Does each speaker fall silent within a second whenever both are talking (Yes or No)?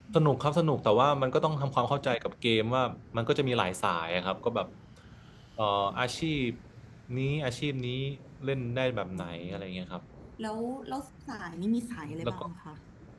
Yes